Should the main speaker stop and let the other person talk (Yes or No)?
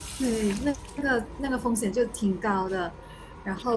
No